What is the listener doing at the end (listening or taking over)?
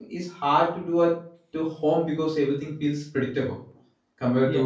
taking over